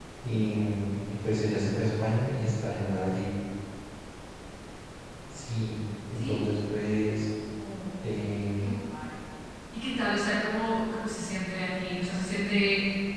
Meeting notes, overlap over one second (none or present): none